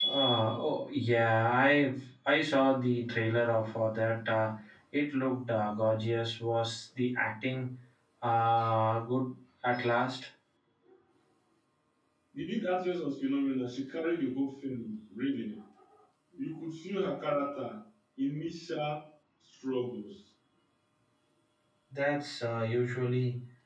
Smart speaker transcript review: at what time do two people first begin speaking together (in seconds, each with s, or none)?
none